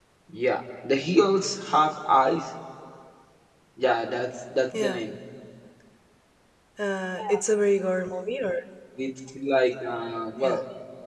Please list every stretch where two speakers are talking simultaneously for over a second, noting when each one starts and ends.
none

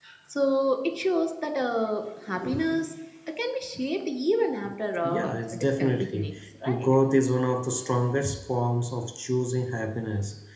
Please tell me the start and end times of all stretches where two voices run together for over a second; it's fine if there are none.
5.0-6.3

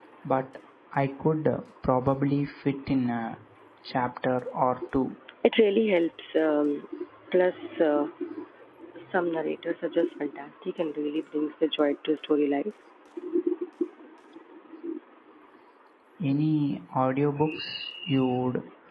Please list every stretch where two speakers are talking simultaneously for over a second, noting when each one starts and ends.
none

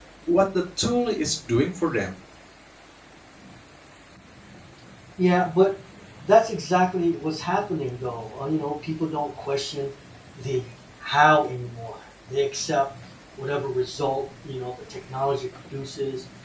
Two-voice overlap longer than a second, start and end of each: none

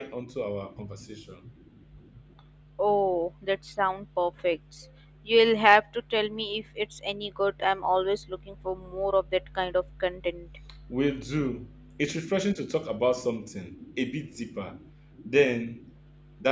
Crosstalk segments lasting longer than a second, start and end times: none

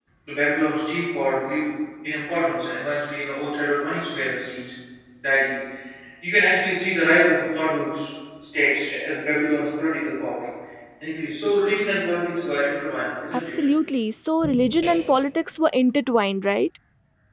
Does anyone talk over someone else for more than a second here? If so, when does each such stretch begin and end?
none

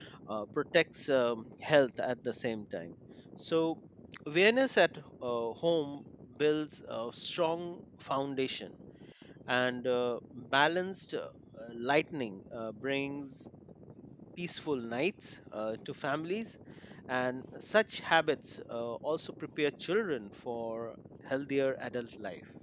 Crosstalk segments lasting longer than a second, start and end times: none

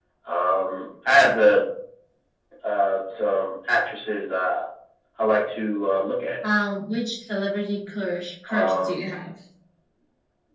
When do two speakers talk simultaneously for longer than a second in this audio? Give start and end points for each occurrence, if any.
none

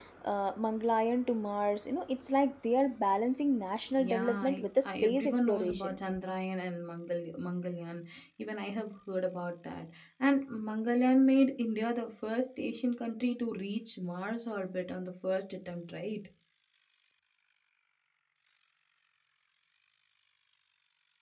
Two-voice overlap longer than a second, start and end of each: 4.0-6.0

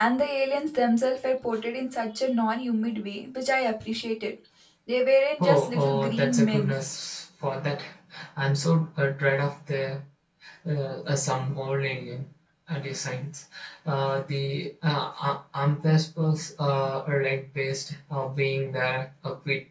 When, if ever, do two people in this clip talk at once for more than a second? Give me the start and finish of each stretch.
5.4-6.7

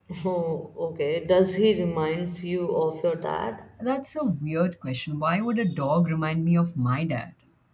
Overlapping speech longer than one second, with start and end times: none

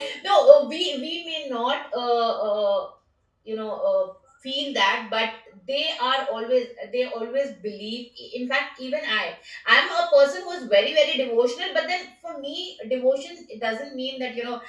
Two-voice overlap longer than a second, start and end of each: none

